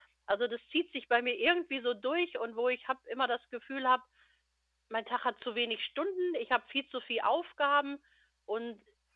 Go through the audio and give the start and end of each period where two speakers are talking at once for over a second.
none

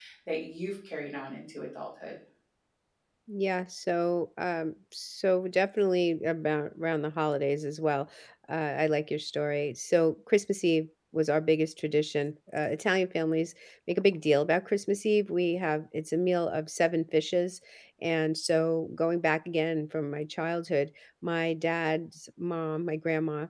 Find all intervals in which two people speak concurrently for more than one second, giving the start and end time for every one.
none

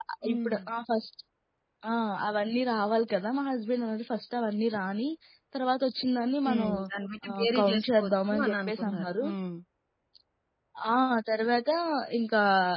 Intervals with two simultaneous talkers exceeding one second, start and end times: 7.3-9.2

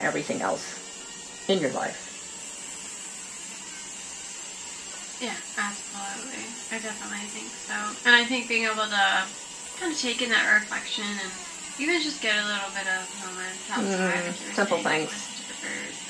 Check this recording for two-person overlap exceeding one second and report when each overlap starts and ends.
13.8-15.2

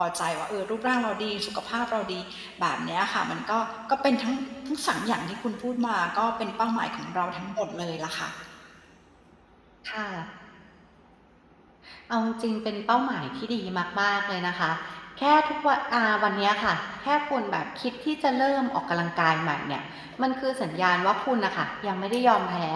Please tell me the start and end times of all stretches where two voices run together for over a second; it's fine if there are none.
none

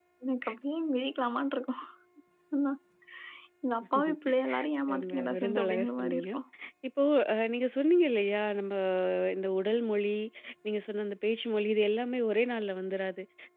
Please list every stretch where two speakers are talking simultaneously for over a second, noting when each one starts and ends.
5.0-6.3

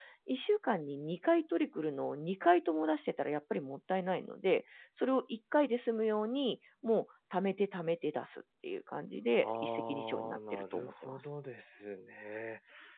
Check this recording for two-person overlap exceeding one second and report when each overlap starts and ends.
9.4-11.2

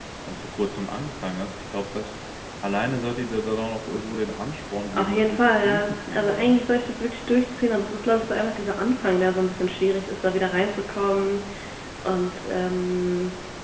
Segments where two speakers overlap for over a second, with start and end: 4.9-6.5

